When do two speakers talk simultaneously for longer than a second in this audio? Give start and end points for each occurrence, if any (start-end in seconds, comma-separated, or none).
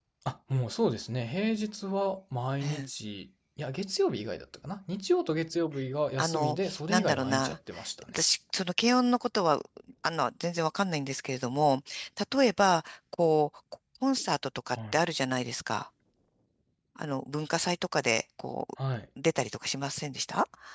6.2-7.6